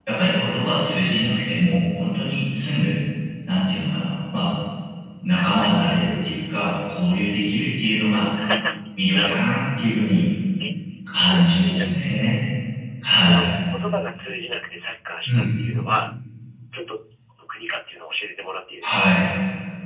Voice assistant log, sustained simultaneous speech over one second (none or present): present